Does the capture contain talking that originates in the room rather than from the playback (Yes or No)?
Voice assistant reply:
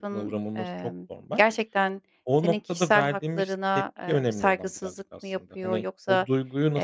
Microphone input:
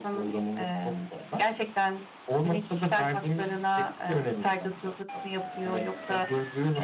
No